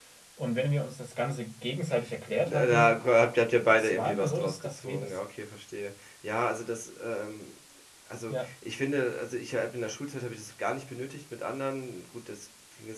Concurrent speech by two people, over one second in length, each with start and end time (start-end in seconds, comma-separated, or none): 3.7-5.2